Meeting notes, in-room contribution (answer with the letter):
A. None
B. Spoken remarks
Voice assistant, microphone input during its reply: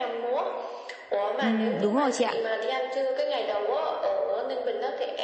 B